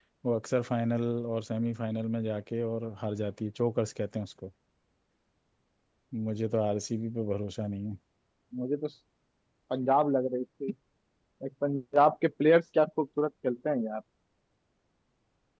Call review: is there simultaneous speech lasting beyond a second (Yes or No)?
No